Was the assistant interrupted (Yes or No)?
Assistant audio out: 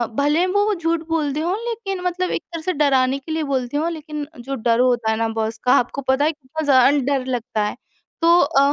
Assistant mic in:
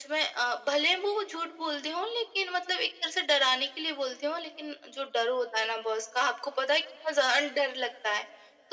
No